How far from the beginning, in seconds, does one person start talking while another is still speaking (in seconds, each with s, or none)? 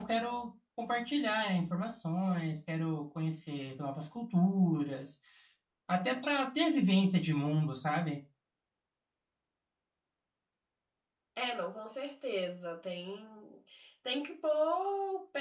none